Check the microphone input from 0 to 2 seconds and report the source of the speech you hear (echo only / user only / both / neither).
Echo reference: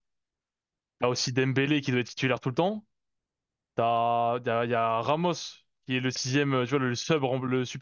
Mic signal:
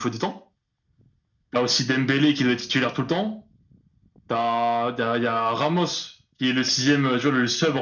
echo only